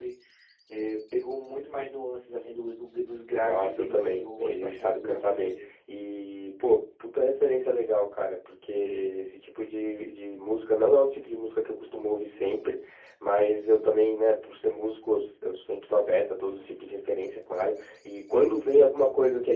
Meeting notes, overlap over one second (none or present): present